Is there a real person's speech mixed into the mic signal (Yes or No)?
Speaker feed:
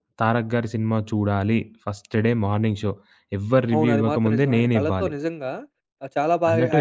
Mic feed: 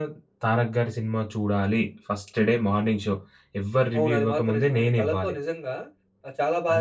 No